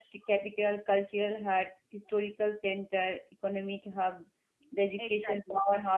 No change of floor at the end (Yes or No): Yes